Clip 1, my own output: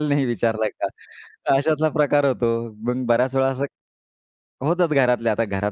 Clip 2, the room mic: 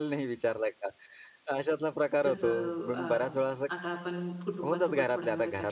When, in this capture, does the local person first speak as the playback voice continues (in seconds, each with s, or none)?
2.2 s